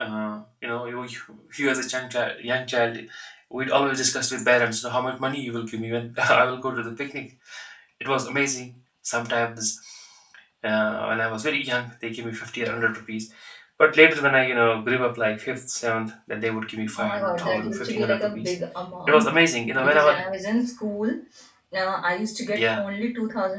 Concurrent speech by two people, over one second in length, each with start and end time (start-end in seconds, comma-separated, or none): 17.0-18.5